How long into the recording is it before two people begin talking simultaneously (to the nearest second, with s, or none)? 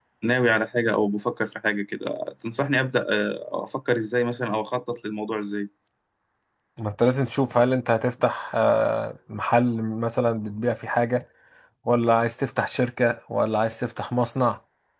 none